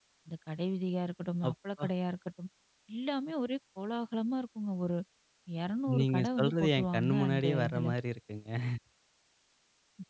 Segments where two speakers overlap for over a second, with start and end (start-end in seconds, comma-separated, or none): 6.0-7.9